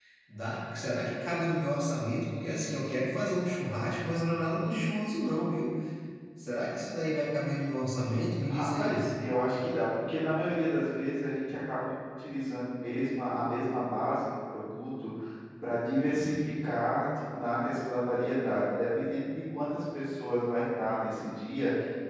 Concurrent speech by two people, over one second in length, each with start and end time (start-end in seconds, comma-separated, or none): none